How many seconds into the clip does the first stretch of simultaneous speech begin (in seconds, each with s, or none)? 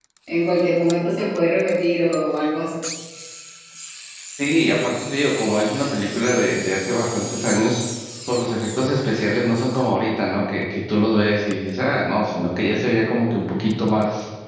none